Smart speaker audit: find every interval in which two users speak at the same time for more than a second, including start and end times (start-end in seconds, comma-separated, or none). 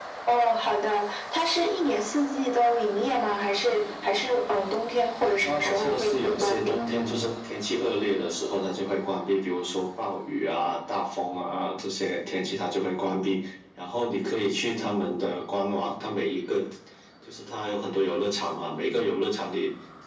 5.4-6.8